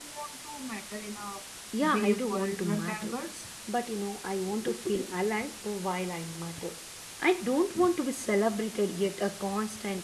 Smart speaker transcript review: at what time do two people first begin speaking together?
1.8 s

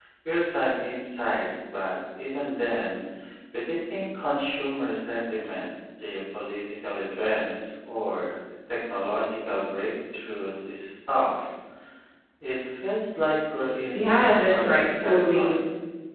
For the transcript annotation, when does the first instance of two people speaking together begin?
13.9 s

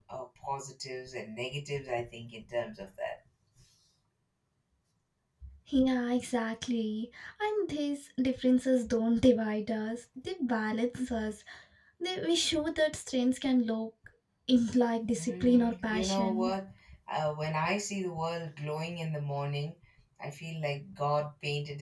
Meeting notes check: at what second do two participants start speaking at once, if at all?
15.2 s

